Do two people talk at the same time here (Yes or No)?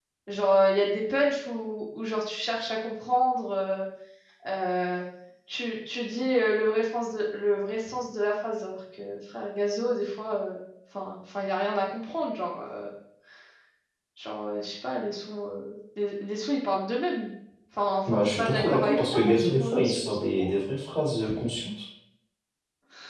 Yes